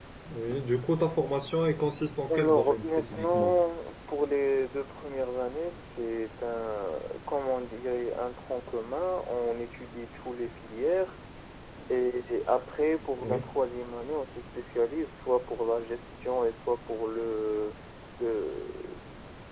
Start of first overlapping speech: 2.3 s

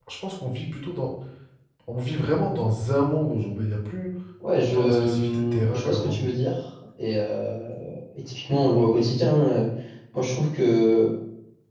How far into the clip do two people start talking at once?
4.6 s

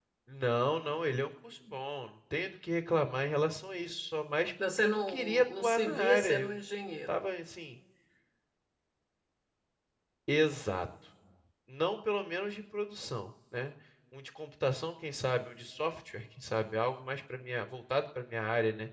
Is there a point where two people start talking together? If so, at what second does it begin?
4.6 s

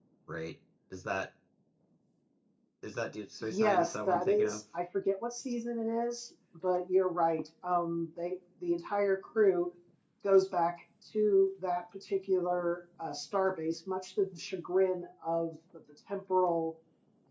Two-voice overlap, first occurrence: 3.4 s

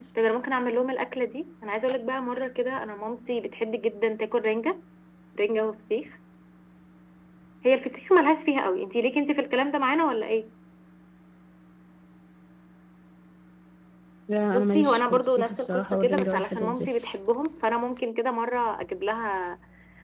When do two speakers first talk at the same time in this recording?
14.5 s

